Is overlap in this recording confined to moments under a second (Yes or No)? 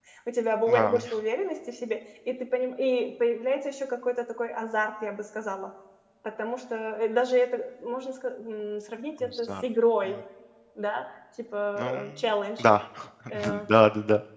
Yes